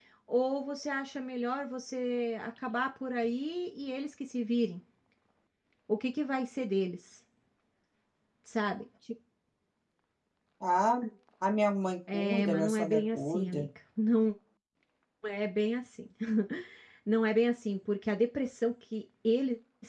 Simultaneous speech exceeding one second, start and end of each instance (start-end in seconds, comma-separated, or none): 12.1-13.7